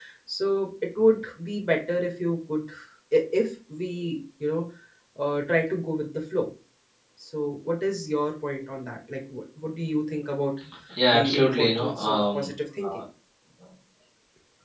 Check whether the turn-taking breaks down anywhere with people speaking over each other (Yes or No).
Yes